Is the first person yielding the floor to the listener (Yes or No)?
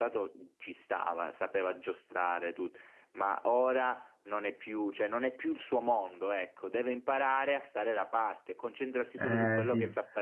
Yes